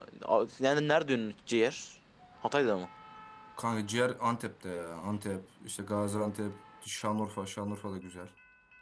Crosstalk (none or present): none